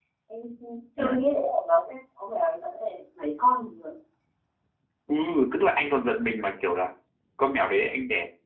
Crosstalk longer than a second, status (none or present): none